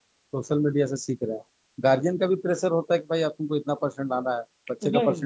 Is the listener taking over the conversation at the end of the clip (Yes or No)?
No